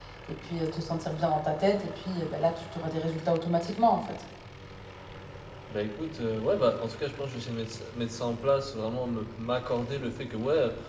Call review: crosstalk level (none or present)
none